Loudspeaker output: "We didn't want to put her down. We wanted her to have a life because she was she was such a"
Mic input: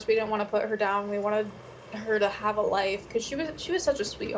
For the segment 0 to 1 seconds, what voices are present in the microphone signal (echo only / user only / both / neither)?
echo only